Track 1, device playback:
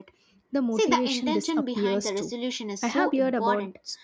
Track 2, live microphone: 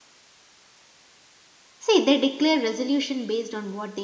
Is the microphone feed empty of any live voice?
No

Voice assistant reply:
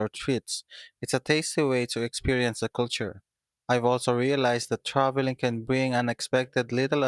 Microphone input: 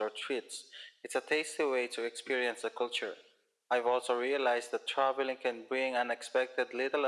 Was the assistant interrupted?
No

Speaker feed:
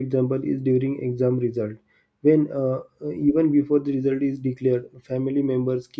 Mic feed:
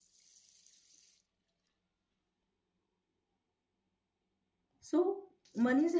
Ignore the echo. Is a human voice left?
Yes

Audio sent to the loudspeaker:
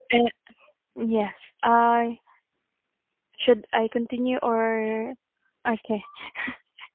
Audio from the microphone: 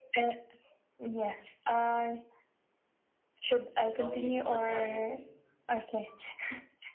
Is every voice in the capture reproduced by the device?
No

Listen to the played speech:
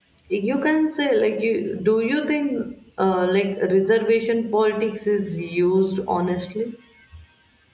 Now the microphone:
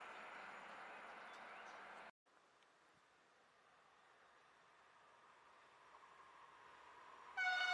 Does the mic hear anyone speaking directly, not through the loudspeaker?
No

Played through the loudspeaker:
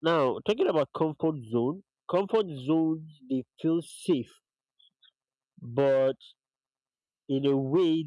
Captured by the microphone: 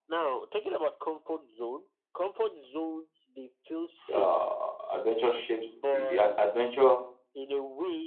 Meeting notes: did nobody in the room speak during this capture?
No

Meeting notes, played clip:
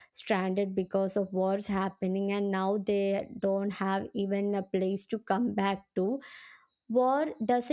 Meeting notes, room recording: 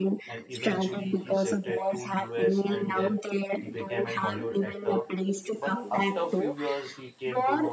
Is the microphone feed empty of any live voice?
No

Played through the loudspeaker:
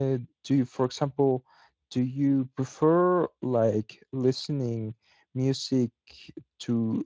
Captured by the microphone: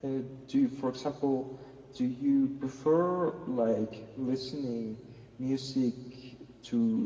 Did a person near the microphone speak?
No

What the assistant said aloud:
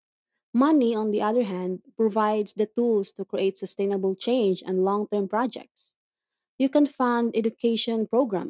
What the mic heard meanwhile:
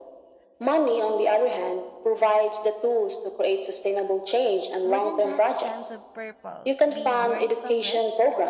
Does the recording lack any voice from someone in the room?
No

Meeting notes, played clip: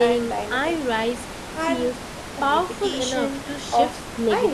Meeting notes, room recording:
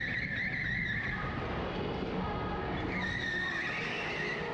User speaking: No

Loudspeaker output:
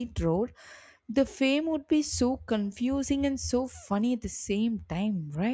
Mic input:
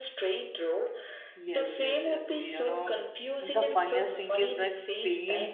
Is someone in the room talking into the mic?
Yes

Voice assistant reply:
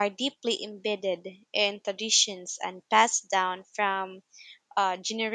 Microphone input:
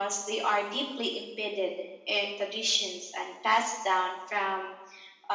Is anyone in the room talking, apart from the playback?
No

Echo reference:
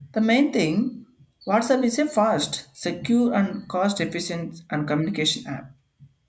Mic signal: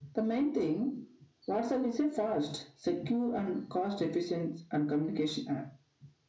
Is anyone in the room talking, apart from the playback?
No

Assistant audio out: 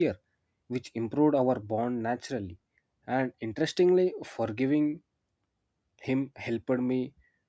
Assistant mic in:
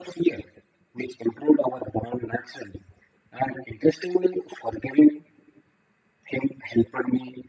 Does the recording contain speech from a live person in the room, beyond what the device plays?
No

